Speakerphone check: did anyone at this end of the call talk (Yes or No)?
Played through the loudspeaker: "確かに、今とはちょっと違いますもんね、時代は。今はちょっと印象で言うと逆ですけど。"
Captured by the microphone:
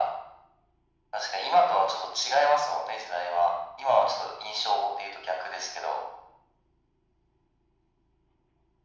No